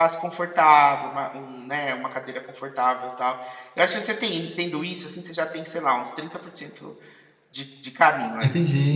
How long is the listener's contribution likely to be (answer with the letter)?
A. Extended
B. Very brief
B